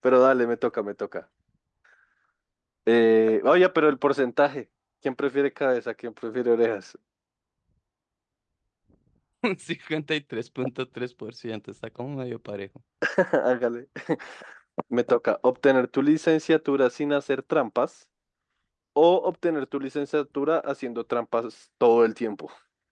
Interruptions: none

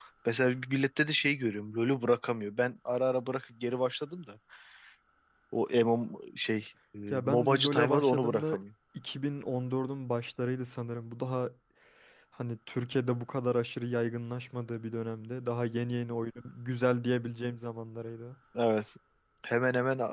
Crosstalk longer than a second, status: present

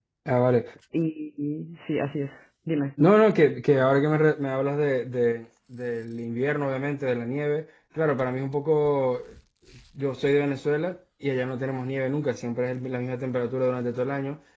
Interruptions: none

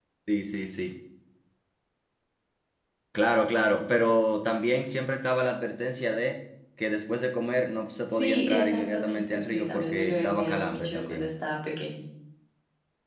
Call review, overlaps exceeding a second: present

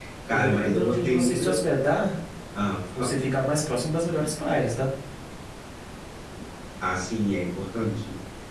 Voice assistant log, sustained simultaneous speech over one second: present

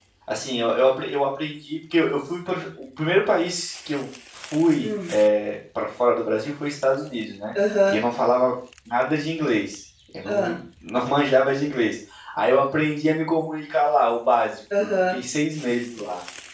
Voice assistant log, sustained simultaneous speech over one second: none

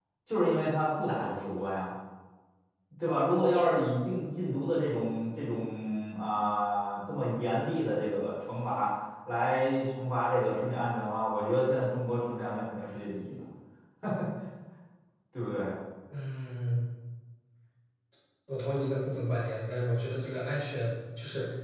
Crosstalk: none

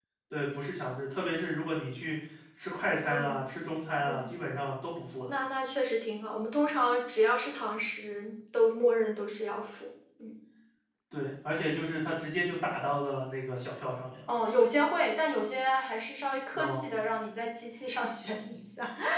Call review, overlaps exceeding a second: none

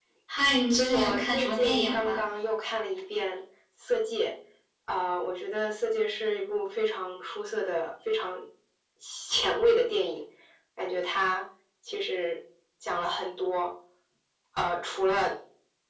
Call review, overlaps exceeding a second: present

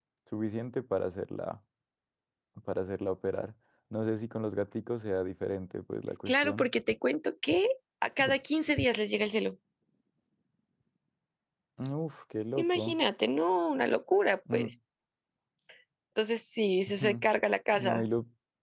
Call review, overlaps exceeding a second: none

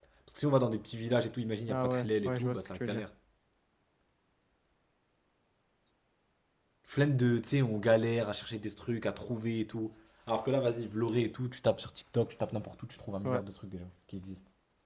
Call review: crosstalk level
present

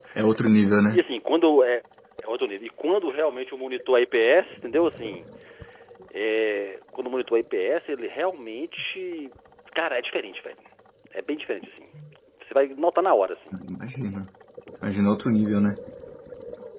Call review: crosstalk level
none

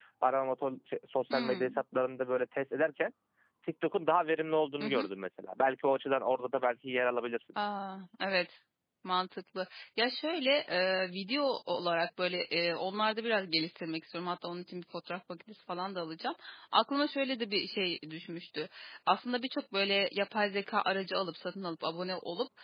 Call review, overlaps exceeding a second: none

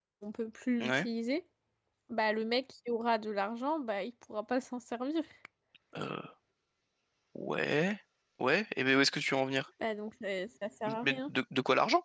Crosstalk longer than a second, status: none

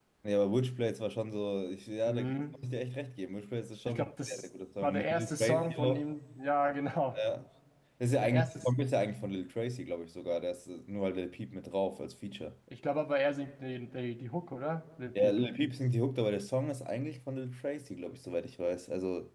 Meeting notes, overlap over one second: present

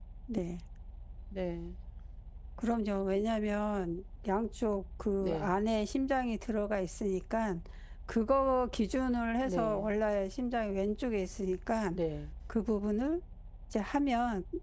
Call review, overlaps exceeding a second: none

